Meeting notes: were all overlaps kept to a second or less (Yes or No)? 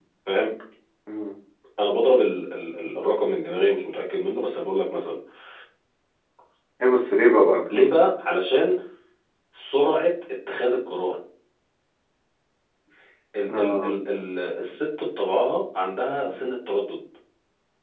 Yes